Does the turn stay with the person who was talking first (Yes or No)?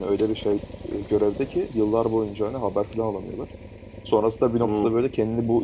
Yes